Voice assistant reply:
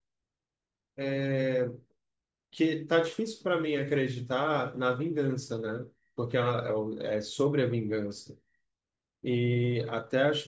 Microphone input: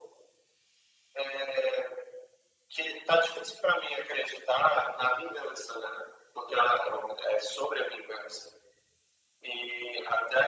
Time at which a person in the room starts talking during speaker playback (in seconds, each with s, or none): none